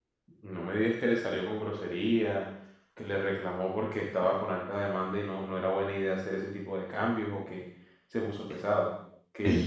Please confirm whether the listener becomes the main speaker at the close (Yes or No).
Yes